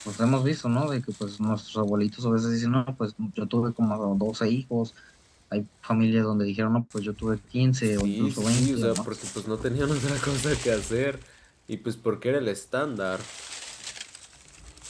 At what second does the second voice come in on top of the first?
7.8 s

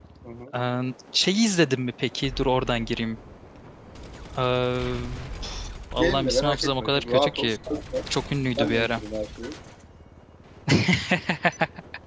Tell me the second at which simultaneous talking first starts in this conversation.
6.0 s

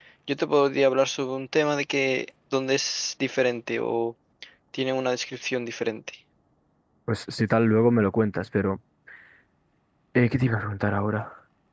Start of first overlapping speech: none

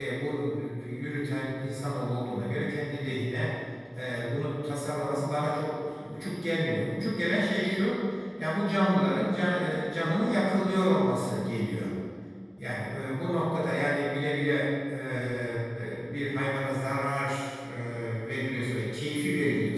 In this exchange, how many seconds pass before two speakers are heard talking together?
none

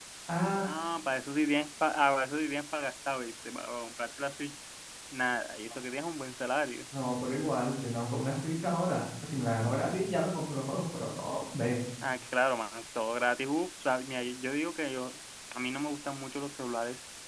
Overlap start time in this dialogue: none

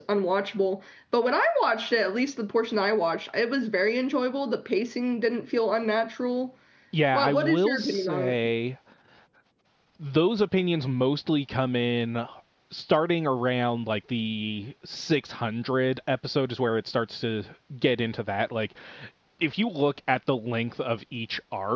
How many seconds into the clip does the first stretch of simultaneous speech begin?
7.1 s

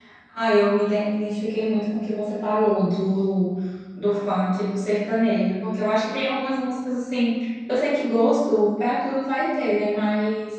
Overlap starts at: none

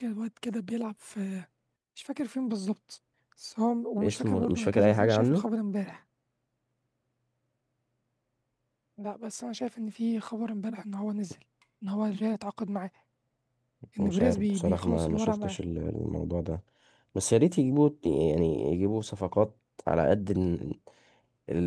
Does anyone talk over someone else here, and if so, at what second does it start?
4.0 s

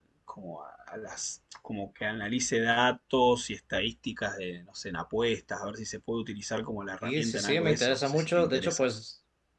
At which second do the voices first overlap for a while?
7.0 s

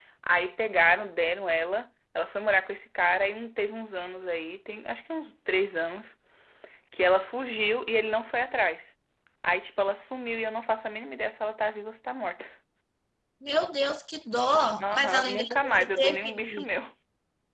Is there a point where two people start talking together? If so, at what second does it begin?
14.8 s

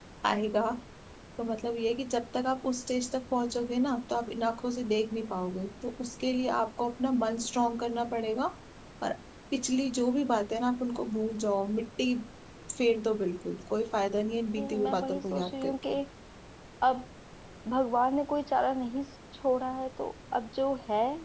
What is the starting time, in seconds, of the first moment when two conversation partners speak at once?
14.6 s

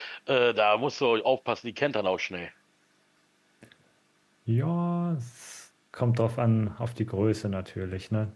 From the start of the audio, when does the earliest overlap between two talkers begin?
none

